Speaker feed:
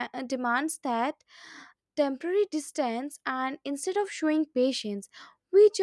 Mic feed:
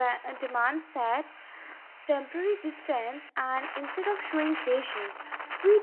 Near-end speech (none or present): none